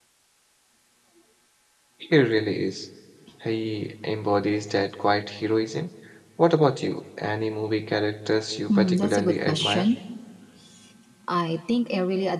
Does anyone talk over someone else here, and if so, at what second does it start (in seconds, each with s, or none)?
8.7 s